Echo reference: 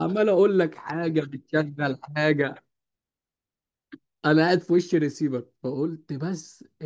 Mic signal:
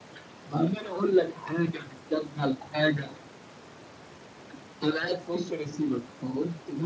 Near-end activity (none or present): none